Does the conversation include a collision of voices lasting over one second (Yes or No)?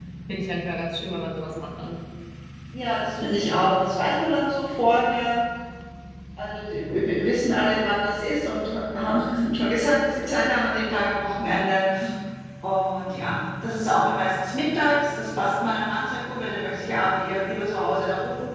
No